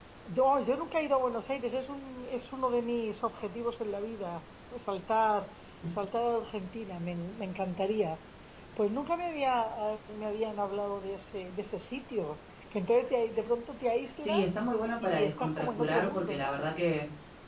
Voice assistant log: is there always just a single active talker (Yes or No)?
No